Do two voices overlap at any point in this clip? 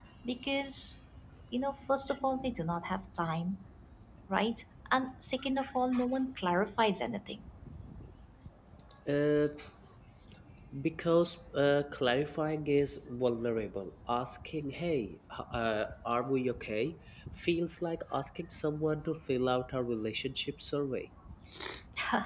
No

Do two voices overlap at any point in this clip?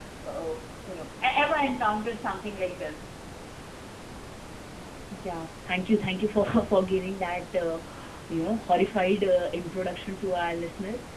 No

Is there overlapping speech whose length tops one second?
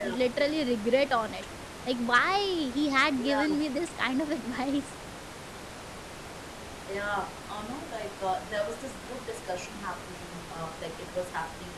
No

